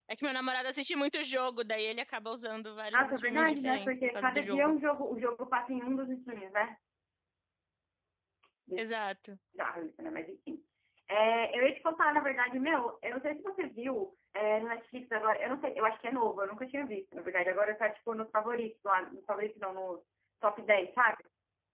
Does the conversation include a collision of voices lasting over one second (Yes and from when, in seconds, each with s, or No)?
Yes, from 2.9 s